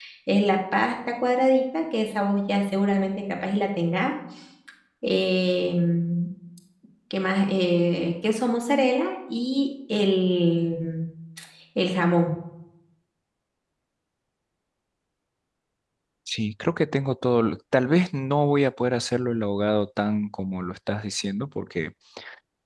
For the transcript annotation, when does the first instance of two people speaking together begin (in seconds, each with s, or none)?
none